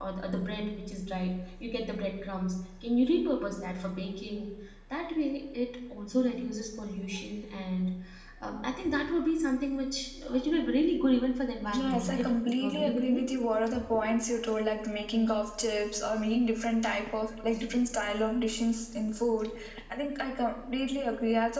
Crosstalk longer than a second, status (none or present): present